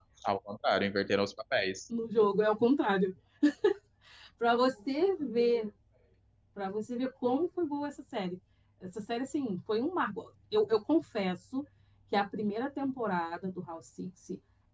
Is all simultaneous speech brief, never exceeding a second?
Yes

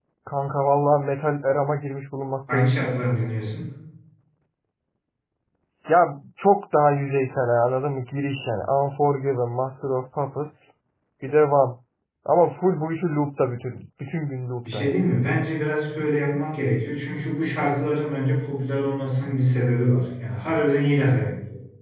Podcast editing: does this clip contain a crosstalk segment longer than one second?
No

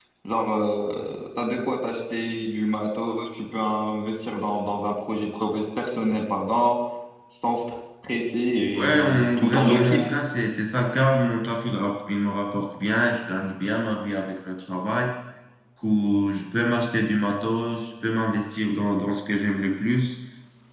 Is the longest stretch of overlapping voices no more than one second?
No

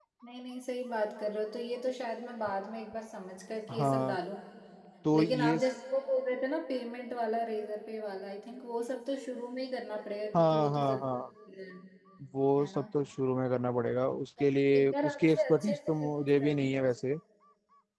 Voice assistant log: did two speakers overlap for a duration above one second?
Yes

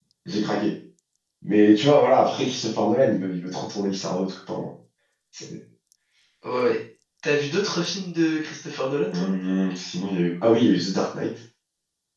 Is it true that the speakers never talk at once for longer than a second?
Yes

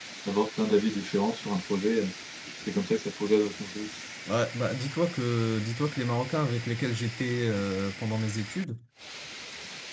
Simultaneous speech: No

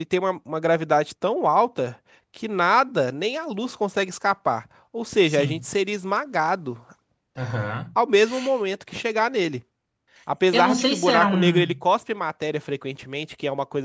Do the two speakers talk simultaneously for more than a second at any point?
Yes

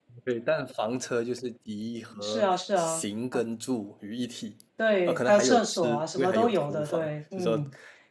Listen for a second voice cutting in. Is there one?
Yes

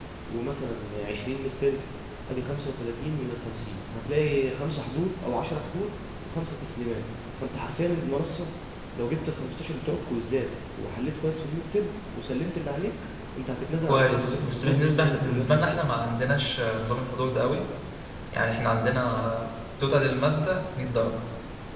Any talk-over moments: Yes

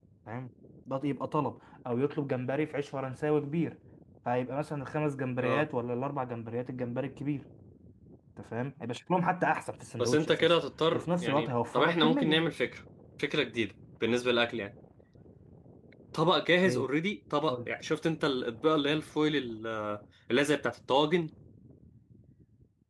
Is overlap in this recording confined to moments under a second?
No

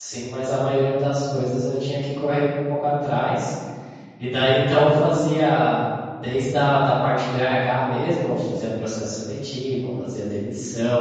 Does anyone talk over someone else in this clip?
No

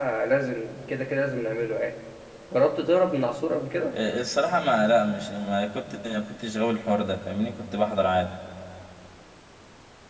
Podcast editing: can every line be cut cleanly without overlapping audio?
Yes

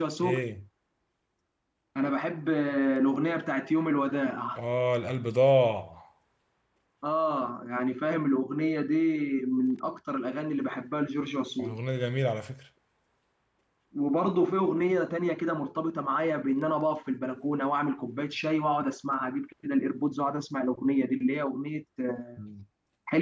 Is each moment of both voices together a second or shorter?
Yes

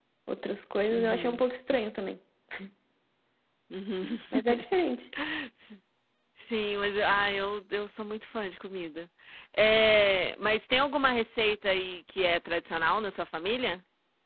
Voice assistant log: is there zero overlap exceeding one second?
Yes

